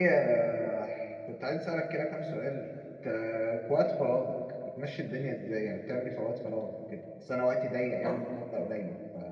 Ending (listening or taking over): listening